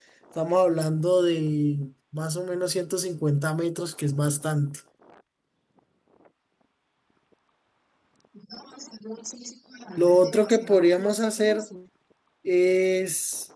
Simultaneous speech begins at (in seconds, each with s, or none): 10.0 s